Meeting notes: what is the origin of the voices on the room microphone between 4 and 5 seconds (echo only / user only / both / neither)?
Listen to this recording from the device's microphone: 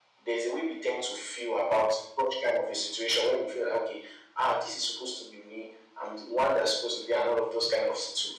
echo only